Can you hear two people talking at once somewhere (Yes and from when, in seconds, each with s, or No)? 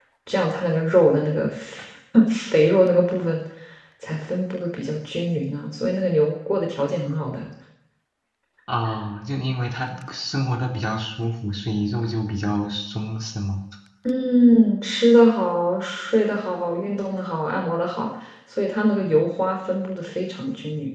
No